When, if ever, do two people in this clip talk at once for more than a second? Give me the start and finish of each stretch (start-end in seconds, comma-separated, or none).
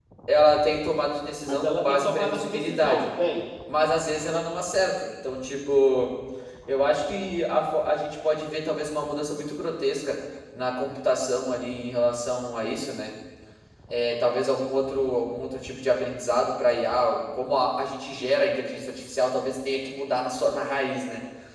1.5-3.1